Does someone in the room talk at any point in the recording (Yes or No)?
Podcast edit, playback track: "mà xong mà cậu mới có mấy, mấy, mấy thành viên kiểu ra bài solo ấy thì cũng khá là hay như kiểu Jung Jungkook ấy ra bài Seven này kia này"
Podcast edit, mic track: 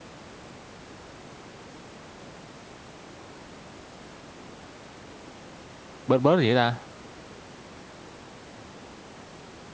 Yes